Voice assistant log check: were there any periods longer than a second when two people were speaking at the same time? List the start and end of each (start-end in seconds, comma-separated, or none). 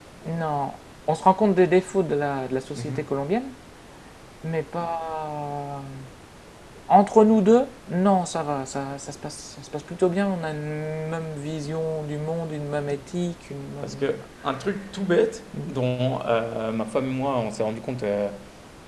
none